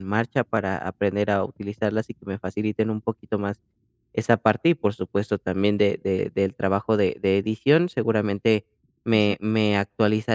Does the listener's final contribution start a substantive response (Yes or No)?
No